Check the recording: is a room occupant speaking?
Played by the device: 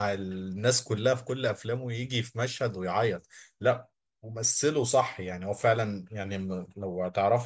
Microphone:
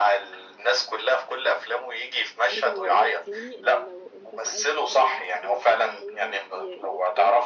Yes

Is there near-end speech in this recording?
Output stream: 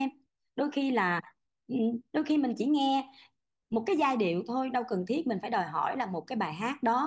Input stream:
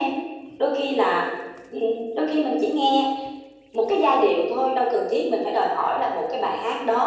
No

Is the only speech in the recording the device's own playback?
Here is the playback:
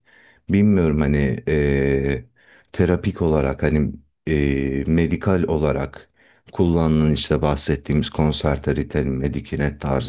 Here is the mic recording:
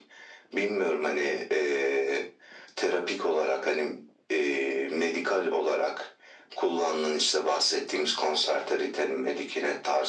Yes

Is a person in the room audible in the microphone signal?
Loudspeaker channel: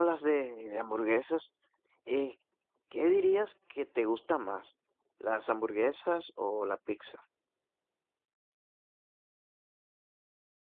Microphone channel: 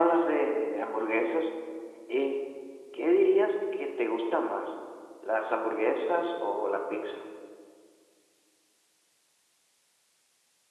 No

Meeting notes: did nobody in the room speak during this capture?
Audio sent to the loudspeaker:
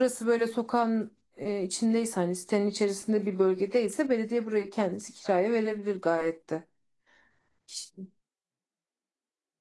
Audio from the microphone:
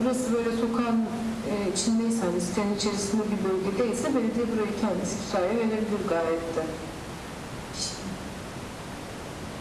Yes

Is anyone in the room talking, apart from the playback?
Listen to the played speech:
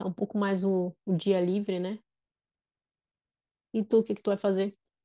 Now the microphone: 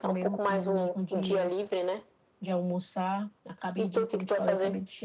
Yes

